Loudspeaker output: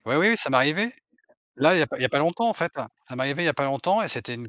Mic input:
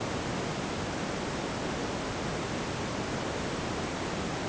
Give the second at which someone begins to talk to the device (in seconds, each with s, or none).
none